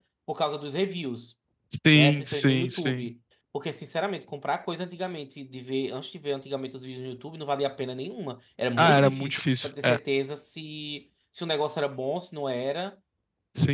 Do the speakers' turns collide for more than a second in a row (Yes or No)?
Yes